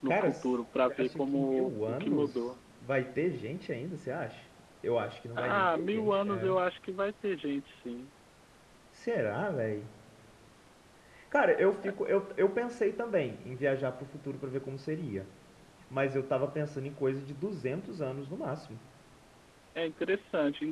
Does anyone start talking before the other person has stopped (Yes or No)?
Yes